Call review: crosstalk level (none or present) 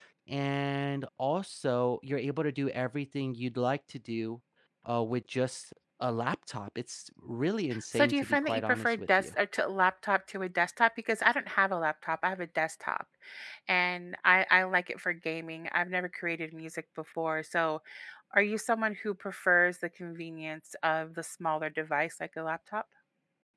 present